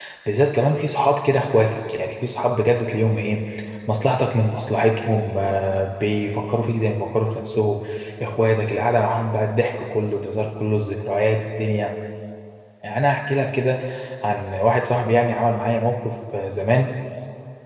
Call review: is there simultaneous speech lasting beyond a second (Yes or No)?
No